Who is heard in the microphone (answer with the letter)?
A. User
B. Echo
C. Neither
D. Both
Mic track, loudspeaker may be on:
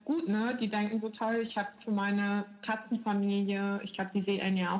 B